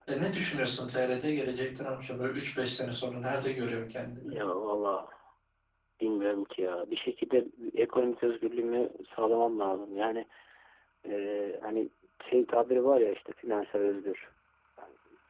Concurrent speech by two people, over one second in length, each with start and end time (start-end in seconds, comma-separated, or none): none